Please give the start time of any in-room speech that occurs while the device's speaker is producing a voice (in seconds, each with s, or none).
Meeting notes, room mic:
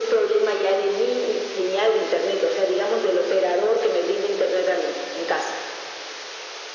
none